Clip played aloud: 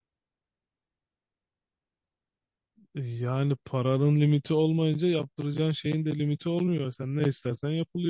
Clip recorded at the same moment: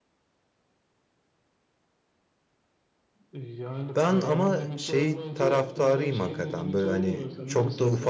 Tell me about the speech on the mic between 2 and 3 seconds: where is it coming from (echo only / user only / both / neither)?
neither